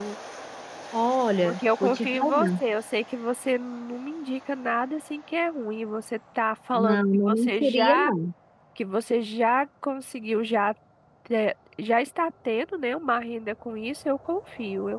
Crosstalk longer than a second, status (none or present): present